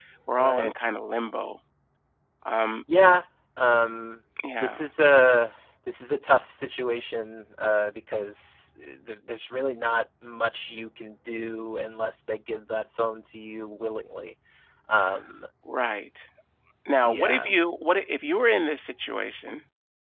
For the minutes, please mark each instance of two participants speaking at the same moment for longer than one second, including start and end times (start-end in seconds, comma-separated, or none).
none